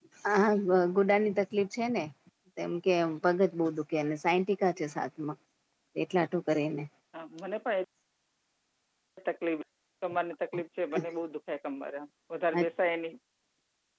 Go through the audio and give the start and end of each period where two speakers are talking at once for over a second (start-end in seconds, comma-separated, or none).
none